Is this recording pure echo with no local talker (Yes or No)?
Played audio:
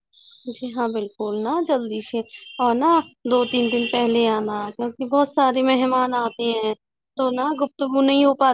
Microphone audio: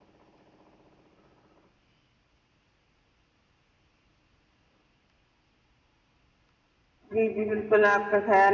No